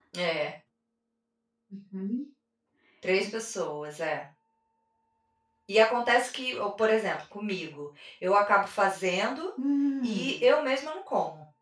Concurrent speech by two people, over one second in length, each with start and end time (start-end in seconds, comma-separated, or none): none